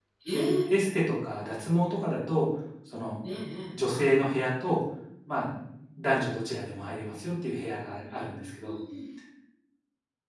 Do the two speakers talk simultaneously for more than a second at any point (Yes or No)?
No